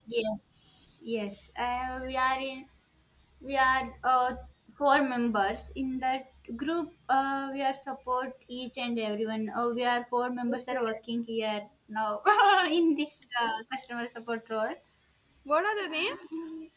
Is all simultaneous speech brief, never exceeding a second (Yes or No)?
Yes